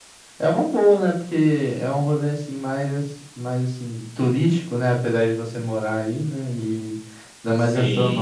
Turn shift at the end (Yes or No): No